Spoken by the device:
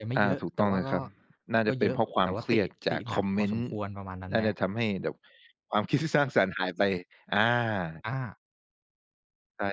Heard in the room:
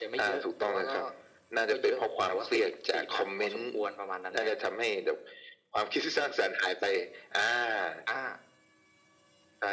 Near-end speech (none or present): none